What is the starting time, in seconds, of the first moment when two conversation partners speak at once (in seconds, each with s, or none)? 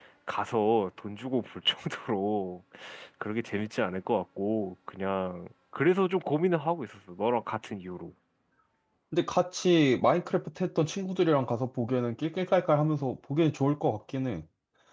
none